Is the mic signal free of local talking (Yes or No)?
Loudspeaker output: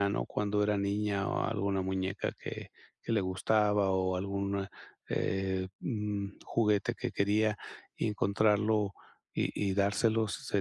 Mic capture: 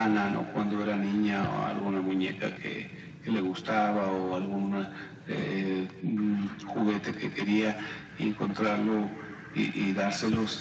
Yes